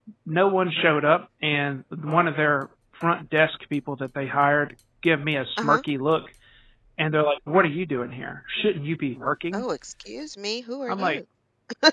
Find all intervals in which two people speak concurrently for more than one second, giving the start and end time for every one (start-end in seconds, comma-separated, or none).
none